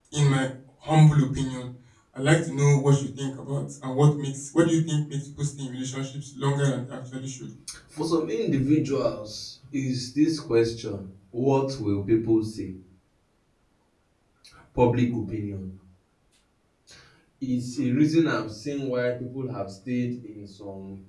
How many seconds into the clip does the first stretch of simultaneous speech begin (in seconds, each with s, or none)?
none